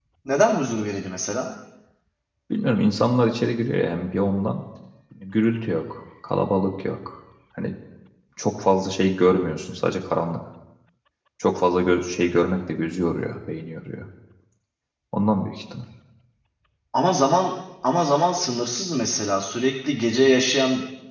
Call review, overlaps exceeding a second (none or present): none